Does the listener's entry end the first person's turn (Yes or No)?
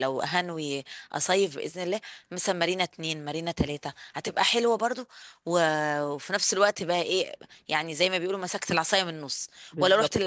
No